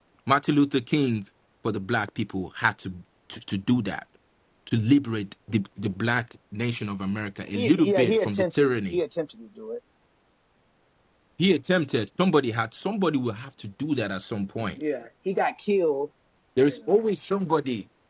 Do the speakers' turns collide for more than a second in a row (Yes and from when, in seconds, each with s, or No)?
Yes, from 7.5 s